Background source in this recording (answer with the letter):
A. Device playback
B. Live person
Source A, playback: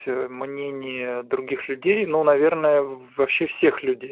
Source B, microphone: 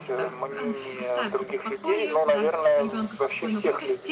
B